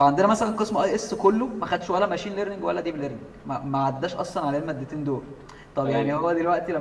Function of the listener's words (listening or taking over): listening